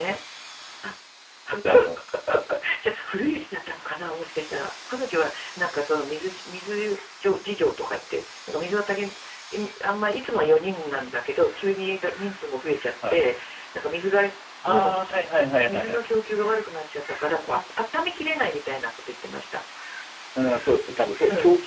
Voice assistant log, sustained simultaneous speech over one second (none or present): none